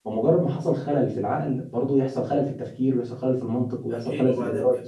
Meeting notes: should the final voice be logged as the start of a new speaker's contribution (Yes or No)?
Yes